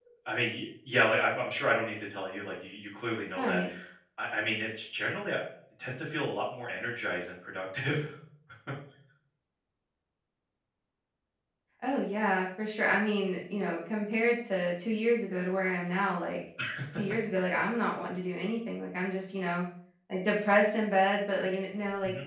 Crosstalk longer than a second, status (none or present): none